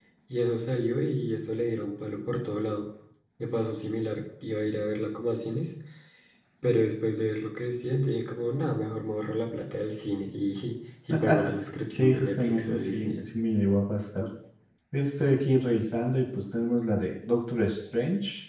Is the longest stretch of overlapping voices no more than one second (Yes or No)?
No